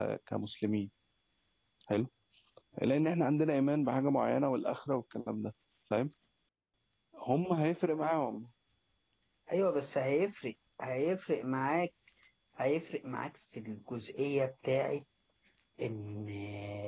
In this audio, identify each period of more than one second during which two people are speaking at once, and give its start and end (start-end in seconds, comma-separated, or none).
none